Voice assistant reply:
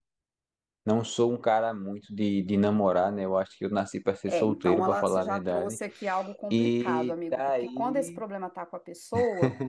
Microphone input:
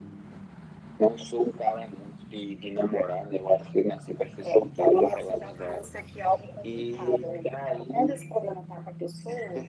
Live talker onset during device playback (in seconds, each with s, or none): none